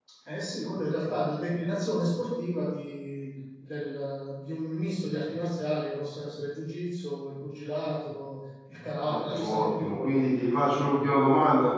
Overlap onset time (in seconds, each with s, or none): 9.1 s